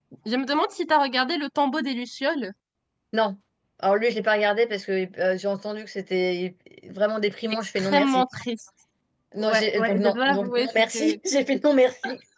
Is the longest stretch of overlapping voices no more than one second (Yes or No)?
No